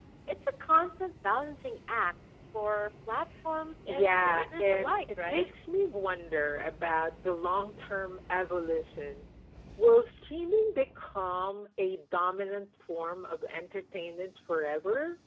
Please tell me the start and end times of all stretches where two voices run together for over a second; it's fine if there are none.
3.9-5.5

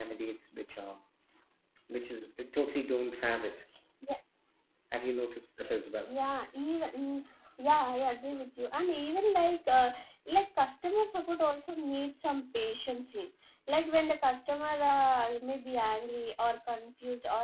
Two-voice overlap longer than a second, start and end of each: none

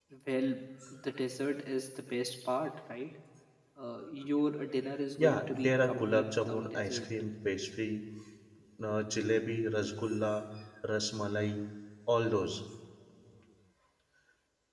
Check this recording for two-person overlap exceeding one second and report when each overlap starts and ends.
5.2-7.0

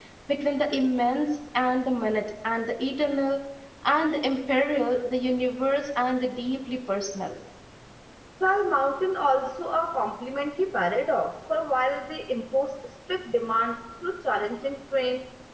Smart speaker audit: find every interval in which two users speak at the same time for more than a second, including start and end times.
none

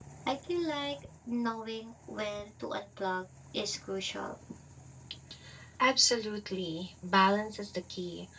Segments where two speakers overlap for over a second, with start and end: none

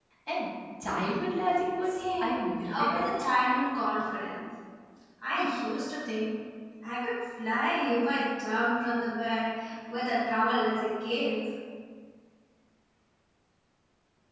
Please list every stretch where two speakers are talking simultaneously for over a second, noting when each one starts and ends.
1.9-3.2

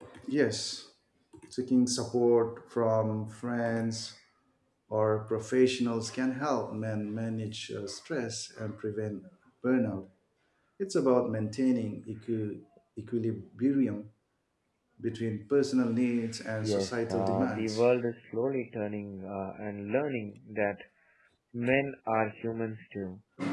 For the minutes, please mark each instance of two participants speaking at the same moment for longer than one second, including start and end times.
16.6-17.8

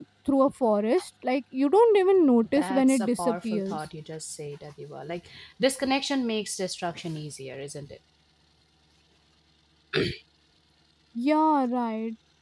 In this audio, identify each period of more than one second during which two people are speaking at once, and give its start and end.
2.5-3.8

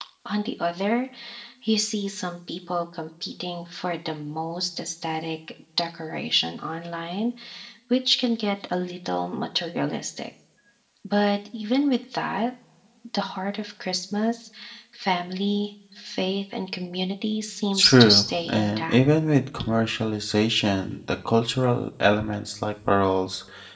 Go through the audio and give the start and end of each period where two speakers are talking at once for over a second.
17.7-19.0

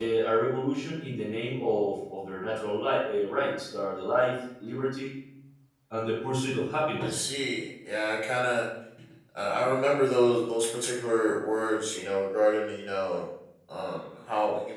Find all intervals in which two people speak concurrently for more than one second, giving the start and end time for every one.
none

